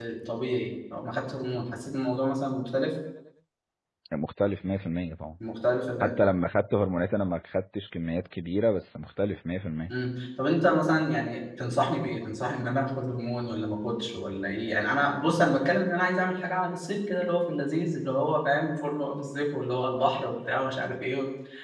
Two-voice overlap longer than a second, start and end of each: none

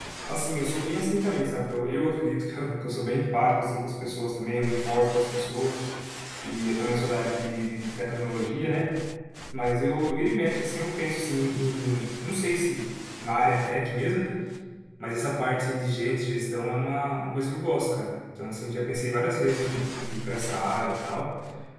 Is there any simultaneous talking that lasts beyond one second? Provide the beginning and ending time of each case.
none

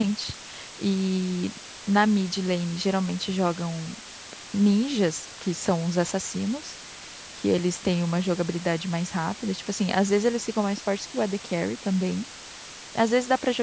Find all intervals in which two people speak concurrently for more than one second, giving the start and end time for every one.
none

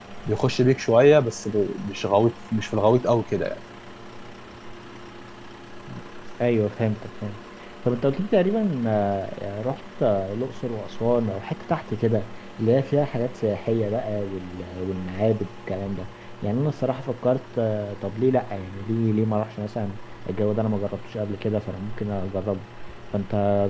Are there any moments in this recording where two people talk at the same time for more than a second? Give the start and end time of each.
none

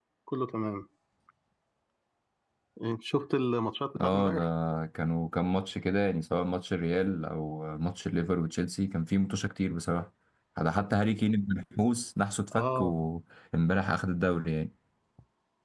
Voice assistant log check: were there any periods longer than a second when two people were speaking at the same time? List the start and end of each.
none

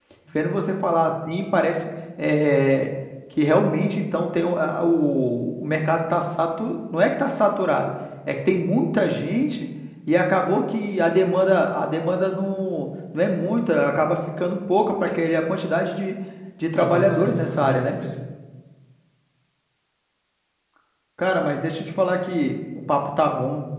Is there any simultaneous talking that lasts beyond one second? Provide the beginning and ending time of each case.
16.8-18.0

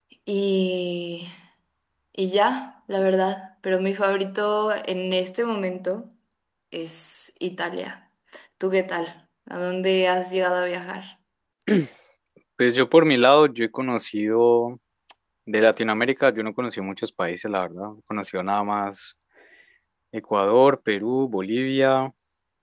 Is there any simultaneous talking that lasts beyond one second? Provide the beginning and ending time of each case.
none

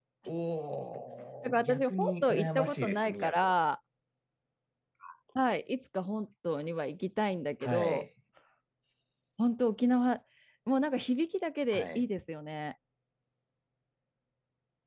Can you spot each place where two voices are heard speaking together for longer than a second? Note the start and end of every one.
1.4-3.5

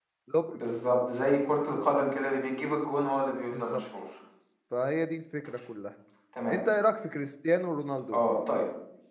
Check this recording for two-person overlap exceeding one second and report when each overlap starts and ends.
none

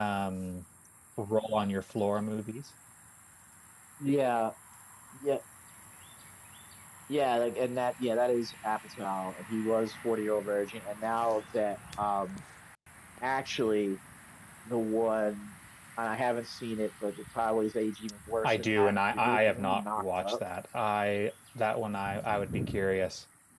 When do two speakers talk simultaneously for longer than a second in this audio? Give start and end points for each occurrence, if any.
18.4-20.4

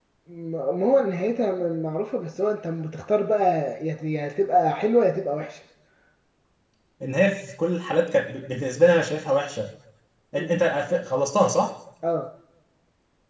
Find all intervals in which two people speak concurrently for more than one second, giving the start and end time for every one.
none

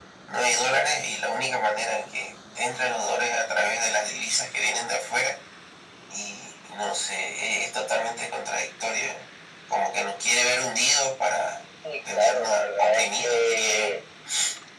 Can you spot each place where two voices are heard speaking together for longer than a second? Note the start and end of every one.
12.1-14.0

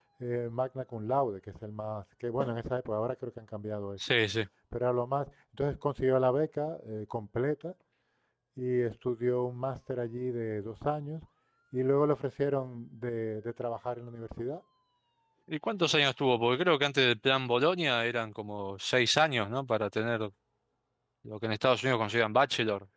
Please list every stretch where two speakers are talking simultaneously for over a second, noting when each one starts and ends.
none

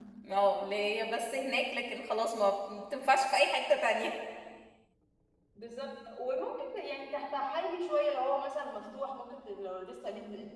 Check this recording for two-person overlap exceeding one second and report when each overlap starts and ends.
none

